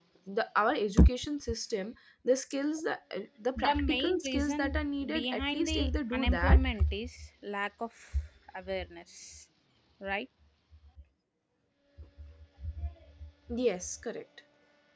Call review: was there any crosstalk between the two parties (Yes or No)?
Yes